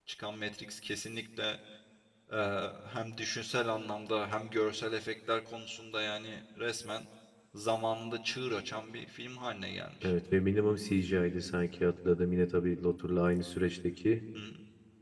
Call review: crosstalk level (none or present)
none